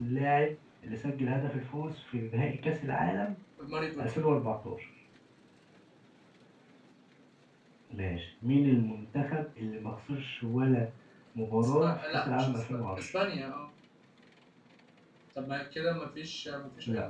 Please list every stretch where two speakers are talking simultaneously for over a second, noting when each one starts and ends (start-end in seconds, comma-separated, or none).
11.6-13.1